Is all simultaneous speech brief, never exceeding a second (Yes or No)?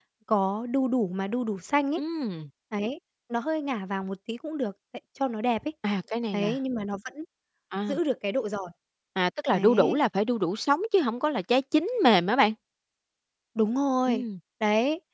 Yes